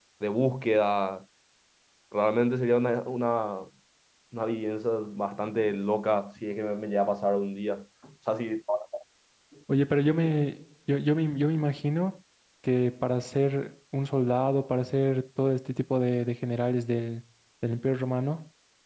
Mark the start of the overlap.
none

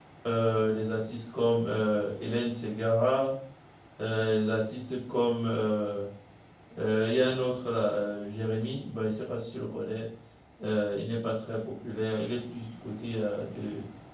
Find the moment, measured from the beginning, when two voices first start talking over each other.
none

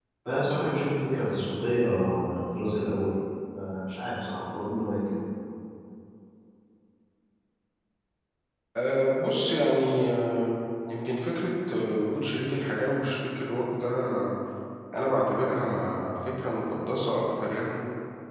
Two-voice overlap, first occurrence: none

